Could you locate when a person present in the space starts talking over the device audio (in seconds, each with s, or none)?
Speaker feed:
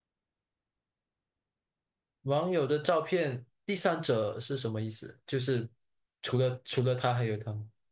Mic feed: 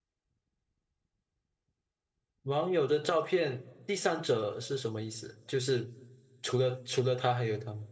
none